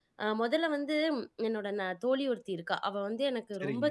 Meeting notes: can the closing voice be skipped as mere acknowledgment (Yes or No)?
Yes